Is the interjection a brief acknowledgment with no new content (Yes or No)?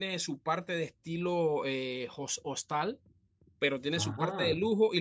Yes